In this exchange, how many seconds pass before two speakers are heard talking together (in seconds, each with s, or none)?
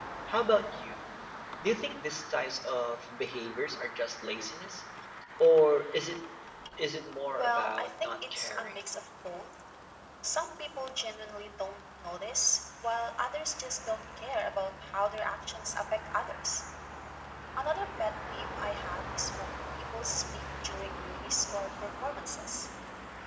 7.3 s